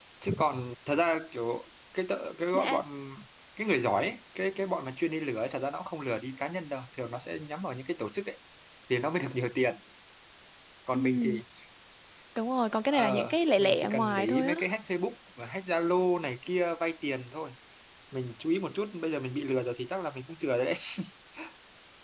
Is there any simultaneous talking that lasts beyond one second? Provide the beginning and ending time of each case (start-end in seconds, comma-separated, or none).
12.9-14.5